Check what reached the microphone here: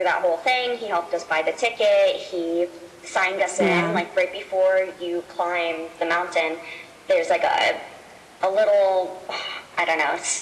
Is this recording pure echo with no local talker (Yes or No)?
No